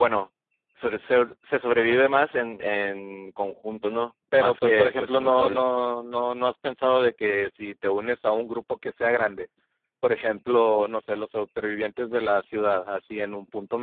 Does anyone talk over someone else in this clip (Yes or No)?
Yes